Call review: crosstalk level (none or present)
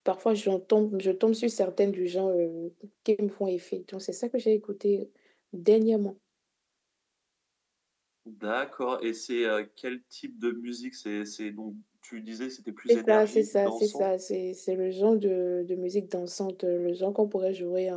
present